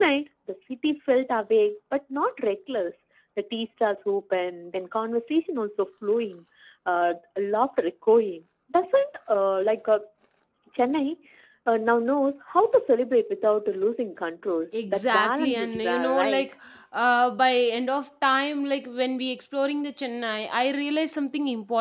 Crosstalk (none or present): present